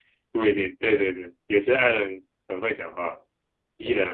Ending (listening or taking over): taking over